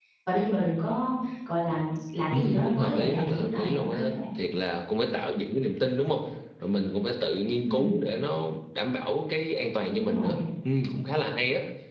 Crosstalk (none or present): present